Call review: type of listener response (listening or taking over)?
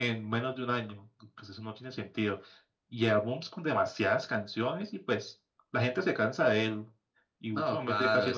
taking over